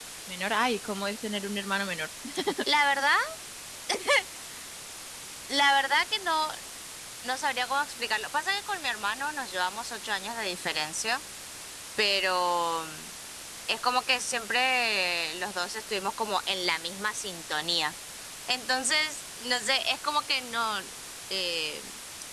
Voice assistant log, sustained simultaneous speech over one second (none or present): none